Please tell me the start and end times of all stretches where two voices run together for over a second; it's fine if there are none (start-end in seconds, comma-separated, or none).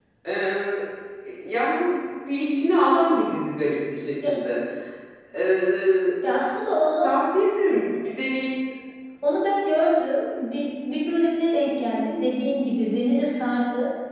none